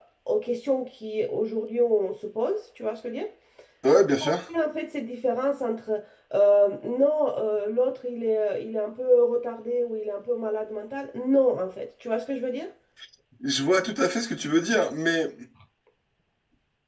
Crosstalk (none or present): none